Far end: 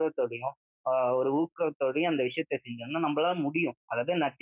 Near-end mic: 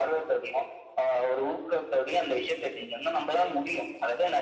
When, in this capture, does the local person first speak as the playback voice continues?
none

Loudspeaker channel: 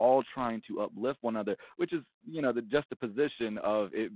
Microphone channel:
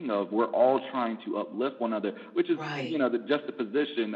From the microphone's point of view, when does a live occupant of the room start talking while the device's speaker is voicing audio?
2.5 s

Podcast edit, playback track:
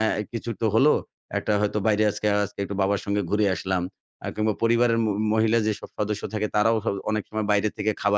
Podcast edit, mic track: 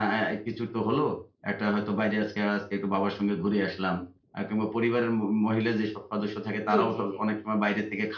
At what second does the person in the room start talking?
6.7 s

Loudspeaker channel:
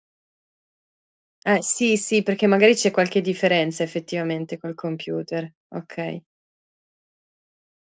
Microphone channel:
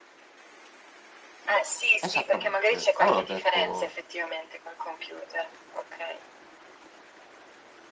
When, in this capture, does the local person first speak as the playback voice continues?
2.0 s

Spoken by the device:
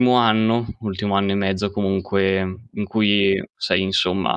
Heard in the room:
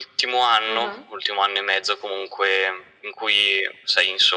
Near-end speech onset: 0.7 s

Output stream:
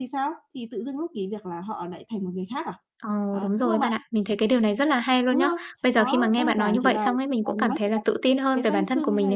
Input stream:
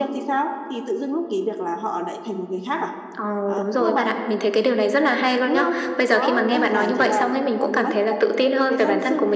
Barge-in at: none

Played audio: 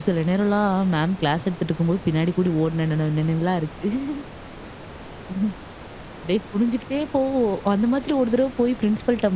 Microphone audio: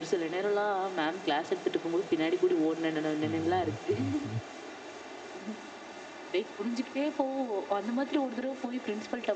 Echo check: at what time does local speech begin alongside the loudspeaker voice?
3.2 s

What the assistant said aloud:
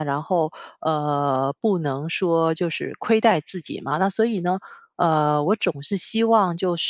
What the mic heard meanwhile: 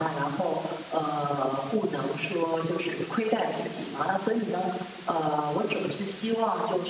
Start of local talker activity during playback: none

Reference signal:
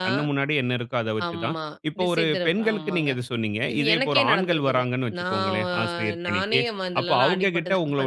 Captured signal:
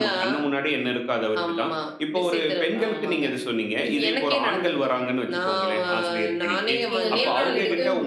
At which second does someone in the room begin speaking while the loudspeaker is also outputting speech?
7.0 s

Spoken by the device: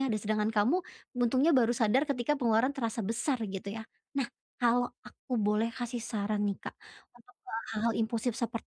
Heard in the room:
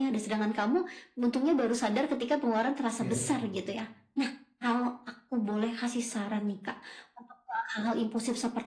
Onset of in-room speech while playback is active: 3.0 s

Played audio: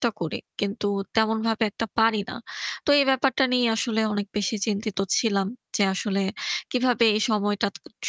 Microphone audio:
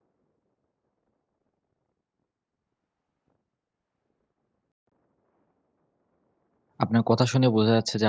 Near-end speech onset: 6.8 s

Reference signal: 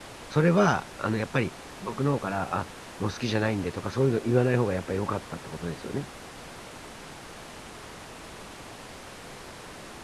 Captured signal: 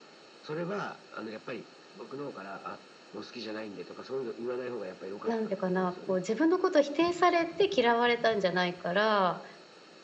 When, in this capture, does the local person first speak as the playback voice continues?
5.2 s

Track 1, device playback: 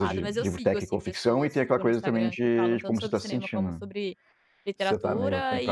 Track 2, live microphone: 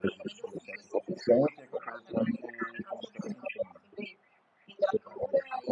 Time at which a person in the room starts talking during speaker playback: none

